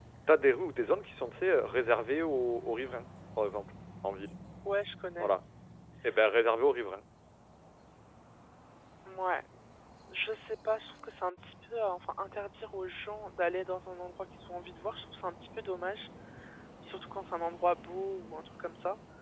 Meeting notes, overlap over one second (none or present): none